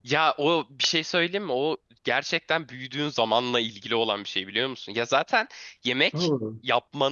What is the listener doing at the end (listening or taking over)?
listening